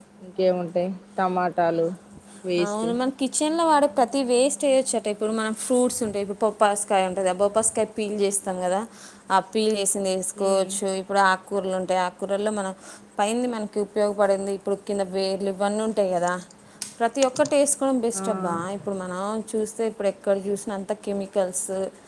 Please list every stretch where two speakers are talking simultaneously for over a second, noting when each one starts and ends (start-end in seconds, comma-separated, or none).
none